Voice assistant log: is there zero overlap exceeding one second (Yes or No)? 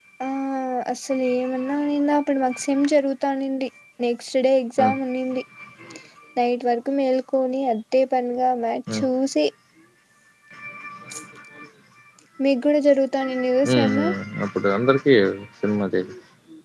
Yes